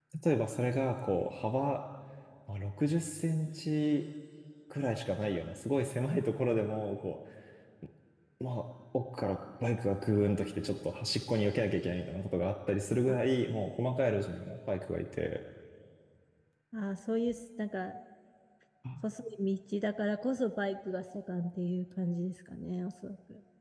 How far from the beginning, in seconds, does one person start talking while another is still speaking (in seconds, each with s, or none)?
none